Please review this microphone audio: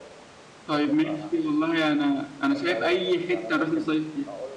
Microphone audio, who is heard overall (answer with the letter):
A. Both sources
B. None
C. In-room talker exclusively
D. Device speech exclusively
A